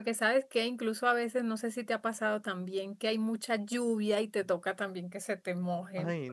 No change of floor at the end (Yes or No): No